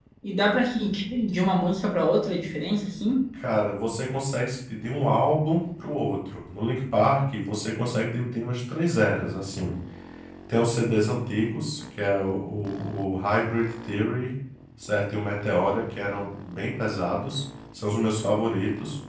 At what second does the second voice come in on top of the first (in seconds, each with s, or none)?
none